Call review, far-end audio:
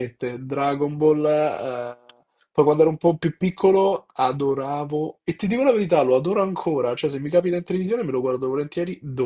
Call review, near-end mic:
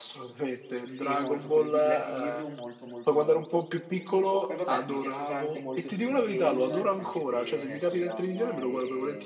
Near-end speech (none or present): present